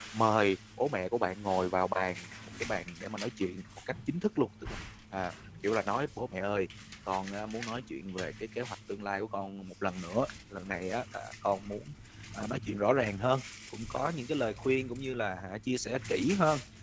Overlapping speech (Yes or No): No